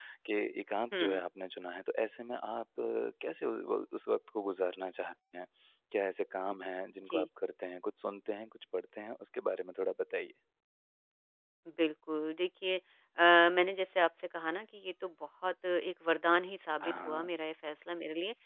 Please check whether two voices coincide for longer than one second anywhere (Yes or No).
No